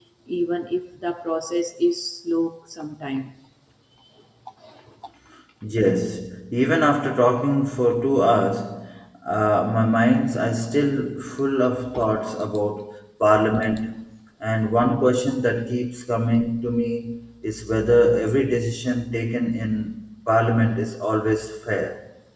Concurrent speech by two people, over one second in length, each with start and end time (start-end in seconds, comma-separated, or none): none